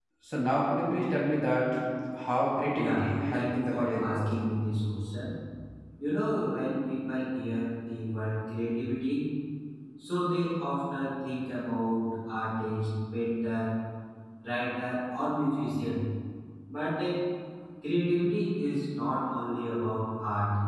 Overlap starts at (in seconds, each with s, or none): 2.8 s